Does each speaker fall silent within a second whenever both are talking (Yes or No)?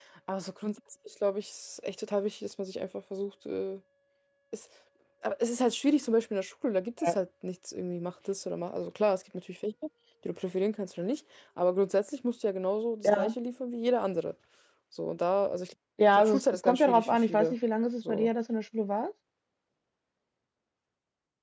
No